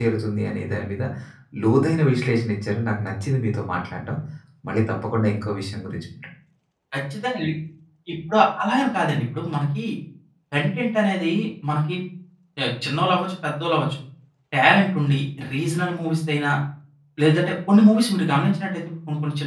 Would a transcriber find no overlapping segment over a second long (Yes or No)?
Yes